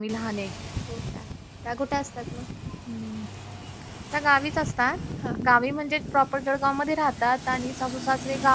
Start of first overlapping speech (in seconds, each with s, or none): none